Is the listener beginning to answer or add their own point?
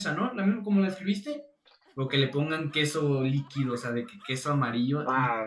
Yes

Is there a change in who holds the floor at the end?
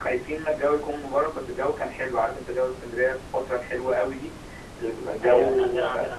Yes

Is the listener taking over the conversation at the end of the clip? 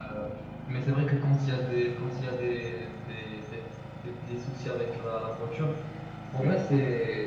No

